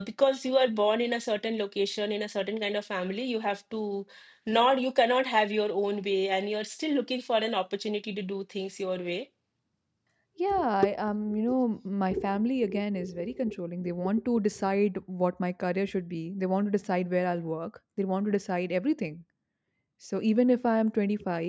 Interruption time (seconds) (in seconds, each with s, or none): none